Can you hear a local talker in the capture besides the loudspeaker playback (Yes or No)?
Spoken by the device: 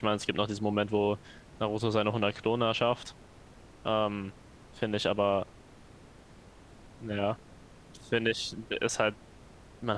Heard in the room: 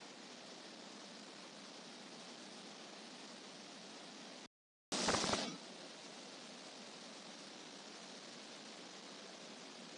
No